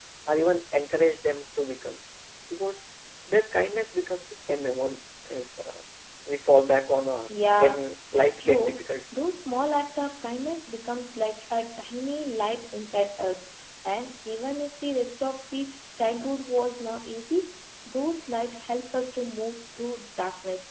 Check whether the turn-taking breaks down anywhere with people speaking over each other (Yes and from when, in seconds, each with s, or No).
Yes, from 7.3 s